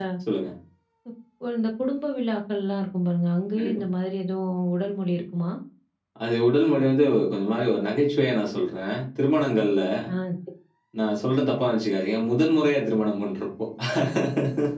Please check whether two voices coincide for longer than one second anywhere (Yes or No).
No